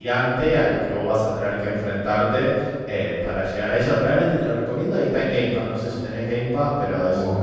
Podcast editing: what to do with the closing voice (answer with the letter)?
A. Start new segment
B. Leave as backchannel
A